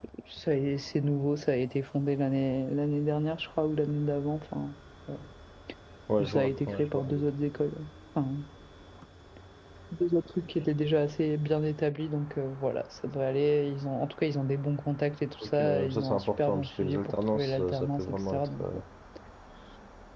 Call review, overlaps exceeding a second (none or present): present